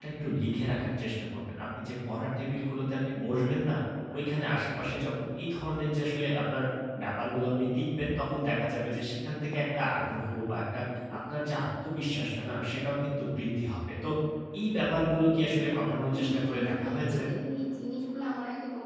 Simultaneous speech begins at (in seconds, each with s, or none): 15.8 s